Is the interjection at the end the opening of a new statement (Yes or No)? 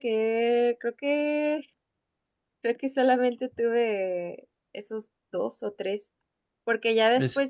No